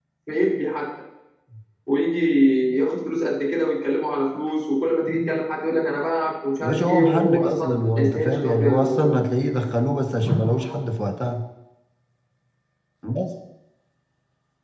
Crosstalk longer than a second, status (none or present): present